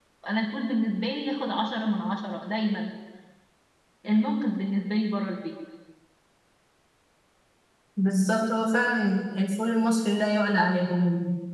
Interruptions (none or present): none